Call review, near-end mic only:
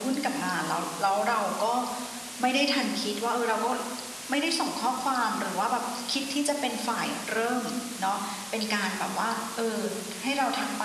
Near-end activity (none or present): none